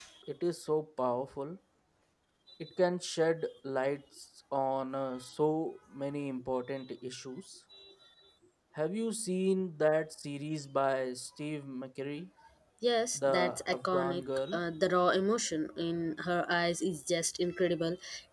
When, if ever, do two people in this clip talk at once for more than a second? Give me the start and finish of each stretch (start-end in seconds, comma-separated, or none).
13.2-14.6